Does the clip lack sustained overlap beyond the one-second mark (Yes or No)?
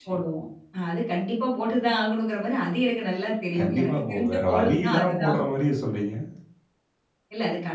No